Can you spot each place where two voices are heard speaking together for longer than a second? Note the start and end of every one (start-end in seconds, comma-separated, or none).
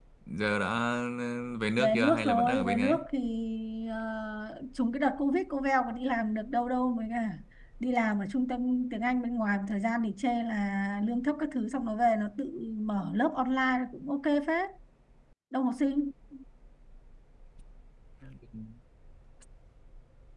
1.8-3.0